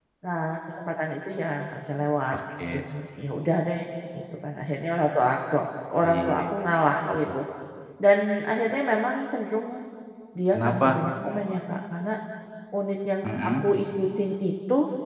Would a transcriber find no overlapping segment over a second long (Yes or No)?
Yes